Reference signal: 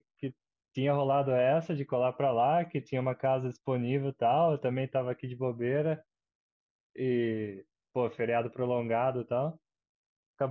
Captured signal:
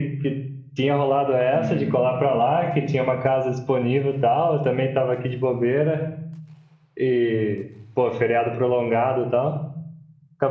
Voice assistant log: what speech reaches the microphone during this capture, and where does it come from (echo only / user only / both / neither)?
both